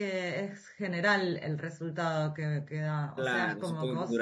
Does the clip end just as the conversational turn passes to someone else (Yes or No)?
Yes